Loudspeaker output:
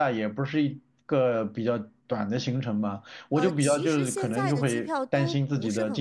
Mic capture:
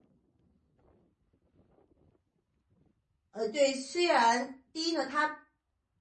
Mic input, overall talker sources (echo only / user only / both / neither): user only